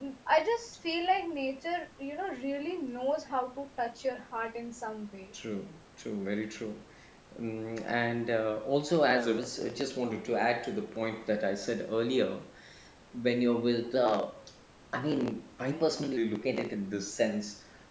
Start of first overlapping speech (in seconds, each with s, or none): none